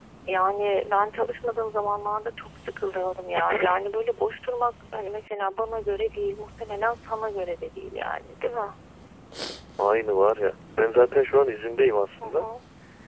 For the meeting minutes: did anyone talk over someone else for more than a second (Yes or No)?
No